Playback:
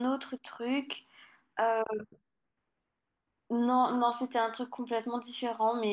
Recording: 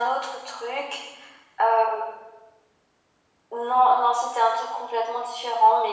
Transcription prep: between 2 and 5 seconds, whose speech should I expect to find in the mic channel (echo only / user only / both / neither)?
echo only